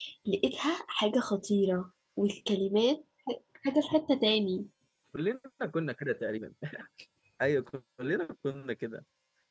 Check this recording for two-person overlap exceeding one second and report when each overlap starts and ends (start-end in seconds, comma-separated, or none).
none